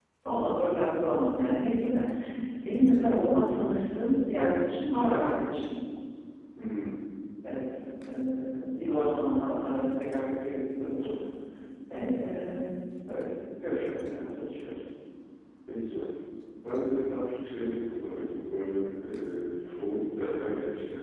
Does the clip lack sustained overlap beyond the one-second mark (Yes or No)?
Yes